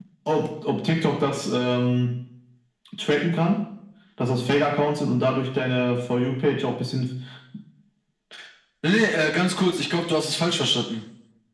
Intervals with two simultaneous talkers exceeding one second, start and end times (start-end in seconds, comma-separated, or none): none